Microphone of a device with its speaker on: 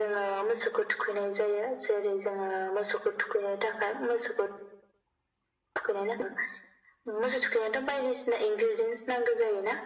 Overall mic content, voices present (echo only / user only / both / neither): echo only